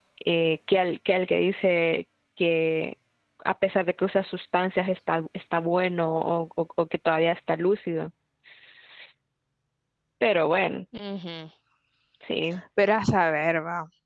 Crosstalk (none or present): none